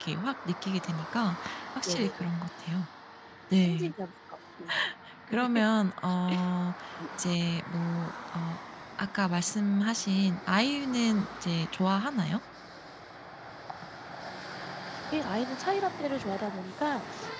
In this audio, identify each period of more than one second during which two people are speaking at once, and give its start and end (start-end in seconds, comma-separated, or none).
none